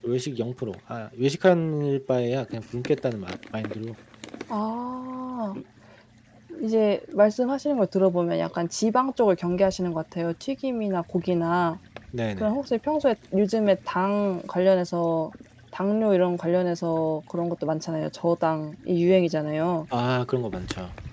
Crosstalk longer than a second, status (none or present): none